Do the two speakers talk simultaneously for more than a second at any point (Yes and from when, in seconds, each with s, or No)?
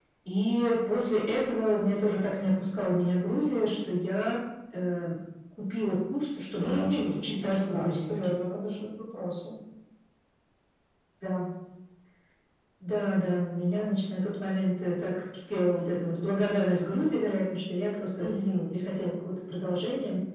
Yes, from 6.6 s